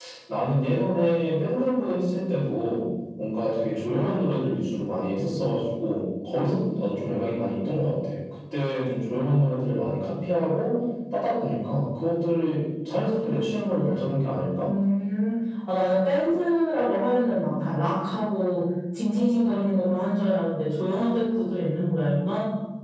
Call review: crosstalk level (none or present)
none